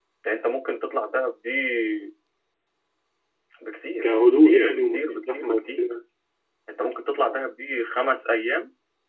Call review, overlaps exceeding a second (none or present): present